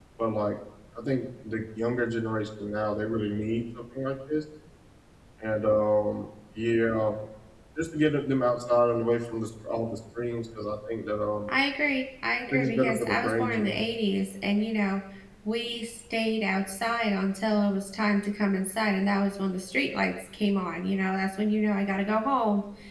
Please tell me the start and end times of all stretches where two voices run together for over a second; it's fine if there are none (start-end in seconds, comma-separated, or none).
12.5-13.8